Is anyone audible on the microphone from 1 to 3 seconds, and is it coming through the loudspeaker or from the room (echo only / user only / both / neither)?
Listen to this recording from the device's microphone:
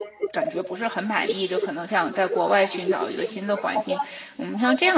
both